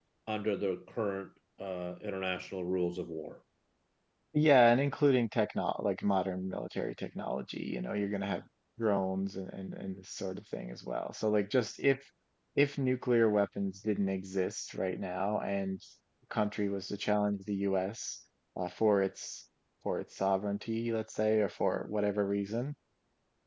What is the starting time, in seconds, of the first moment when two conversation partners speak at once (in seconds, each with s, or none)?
none